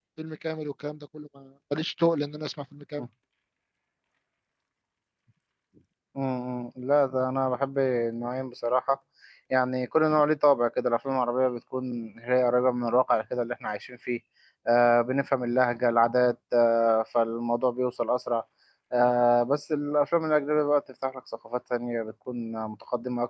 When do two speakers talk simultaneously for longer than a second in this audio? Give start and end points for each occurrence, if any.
none

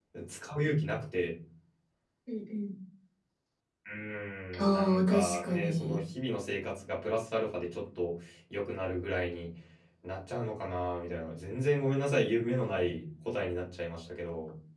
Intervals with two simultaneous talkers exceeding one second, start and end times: 4.7-6.0

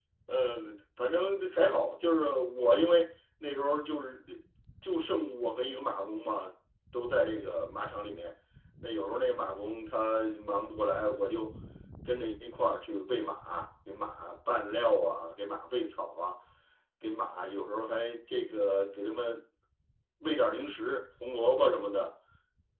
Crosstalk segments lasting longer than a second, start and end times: none

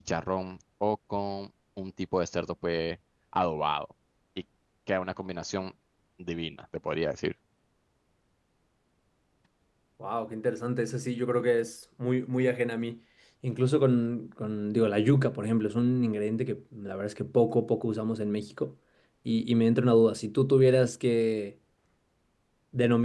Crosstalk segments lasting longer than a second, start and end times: none

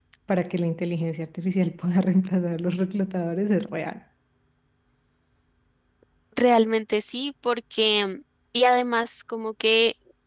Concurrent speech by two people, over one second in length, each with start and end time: none

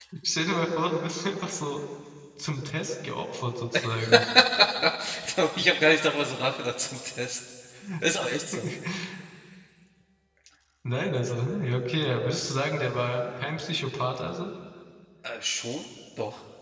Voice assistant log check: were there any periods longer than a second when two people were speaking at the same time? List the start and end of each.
none

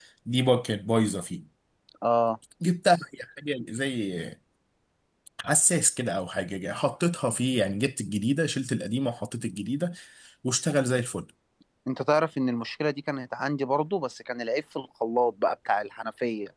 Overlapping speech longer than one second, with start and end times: none

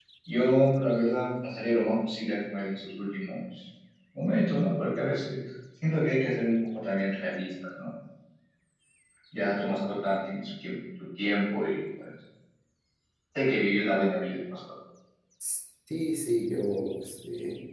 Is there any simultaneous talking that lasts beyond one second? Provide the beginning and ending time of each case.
none

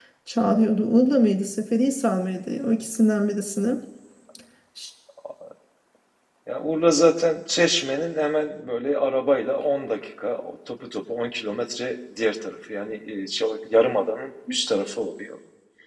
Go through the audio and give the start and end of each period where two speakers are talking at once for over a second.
none

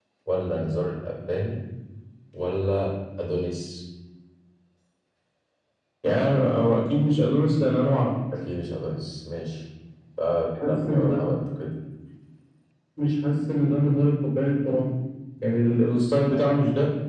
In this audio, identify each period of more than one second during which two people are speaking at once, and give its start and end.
none

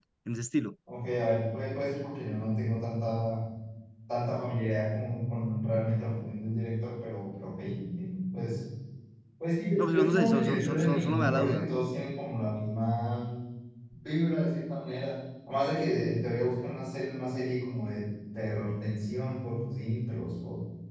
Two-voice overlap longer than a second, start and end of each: 9.8-11.7

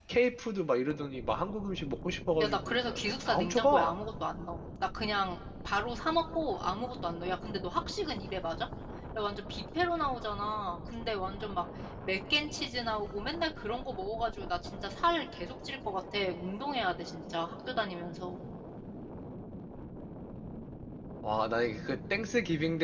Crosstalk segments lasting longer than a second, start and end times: 2.4-4.0

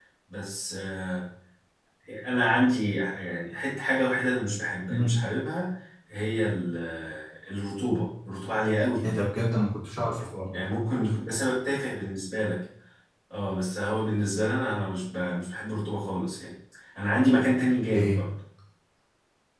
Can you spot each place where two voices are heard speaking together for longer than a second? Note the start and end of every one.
none

